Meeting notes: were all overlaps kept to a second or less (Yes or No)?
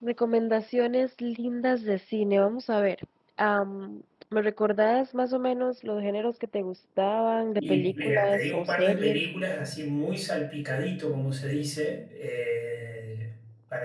No